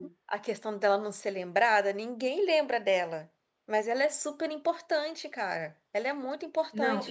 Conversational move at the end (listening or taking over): taking over